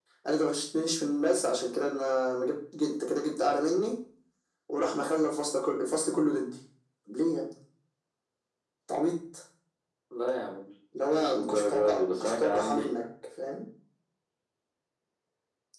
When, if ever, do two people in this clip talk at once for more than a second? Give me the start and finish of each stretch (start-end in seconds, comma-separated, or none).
11.1-12.9